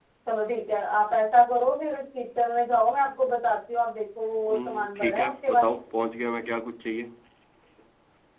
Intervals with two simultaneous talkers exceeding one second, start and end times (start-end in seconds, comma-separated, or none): 4.5-5.7